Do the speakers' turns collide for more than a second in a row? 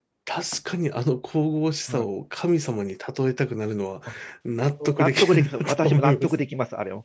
Yes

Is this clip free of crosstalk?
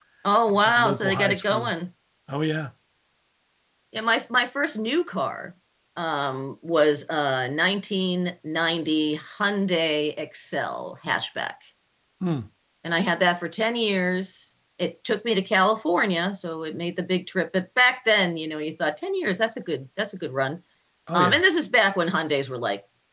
No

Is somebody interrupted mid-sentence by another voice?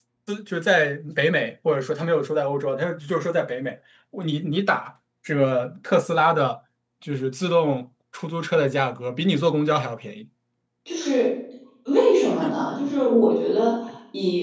No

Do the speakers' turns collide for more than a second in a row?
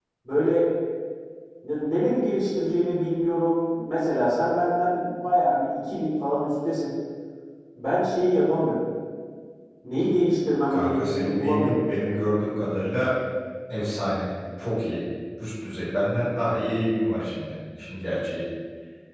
Yes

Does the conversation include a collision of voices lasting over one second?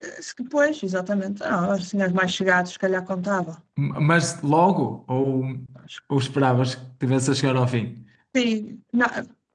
No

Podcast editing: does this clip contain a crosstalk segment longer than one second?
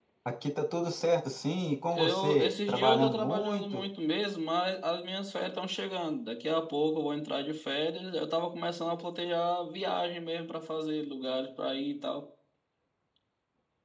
Yes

